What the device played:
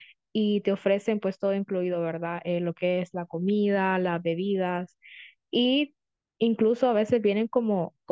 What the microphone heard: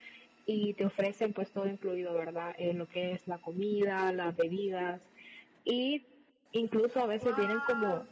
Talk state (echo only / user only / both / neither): both